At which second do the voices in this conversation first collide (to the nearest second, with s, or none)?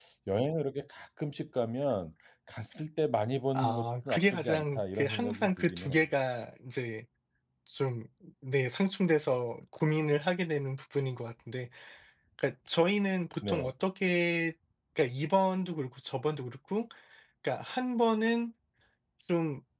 4 s